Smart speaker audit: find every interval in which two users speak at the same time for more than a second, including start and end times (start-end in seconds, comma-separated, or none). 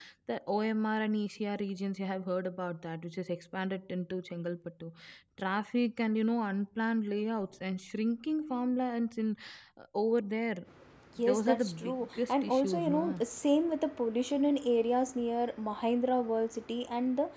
11.2-13.2